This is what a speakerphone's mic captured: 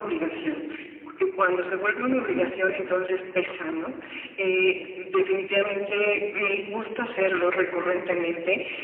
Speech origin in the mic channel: echo only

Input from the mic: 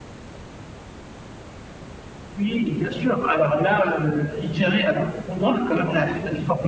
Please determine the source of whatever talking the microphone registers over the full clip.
both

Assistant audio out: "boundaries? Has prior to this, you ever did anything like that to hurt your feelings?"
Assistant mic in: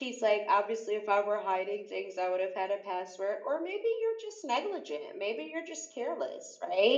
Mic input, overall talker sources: user only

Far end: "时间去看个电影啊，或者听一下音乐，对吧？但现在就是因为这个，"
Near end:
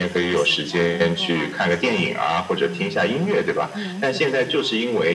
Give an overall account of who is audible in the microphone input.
both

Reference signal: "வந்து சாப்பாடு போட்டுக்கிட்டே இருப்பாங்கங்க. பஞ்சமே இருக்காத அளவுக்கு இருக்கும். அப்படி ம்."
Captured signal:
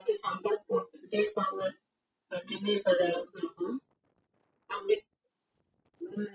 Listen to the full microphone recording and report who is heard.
echo only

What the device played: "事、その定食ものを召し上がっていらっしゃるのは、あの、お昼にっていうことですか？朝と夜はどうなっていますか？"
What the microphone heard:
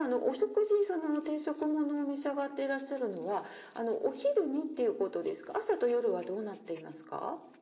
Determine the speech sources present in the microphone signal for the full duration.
echo only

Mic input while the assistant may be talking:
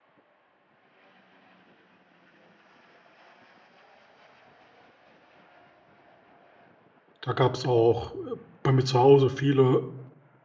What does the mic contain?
user only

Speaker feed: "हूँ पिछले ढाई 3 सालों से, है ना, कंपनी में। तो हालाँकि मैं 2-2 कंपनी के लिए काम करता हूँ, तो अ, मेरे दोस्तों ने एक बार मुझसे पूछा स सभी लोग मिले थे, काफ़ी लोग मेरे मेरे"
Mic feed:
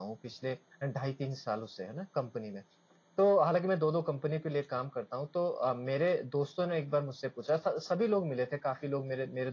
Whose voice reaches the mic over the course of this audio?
echo only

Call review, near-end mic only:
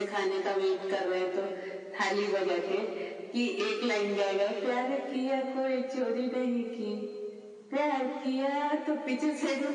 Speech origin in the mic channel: echo only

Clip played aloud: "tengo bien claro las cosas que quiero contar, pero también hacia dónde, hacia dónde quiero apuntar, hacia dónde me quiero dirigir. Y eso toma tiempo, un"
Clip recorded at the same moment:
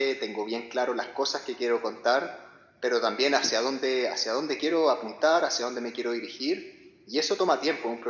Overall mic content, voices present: echo only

